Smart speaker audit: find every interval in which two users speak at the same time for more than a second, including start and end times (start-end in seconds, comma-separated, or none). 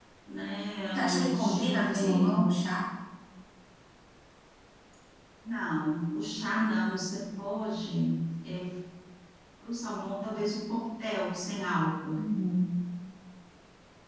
0.9-2.4